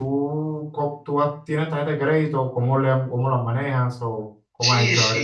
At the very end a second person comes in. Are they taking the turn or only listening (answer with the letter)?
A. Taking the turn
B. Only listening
A